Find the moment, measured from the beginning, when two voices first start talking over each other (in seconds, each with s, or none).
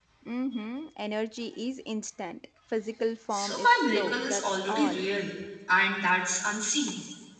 3.3 s